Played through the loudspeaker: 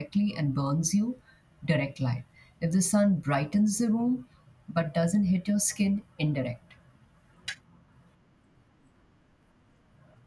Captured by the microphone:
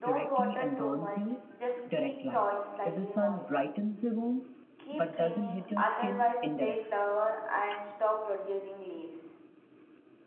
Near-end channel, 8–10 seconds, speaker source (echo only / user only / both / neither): user only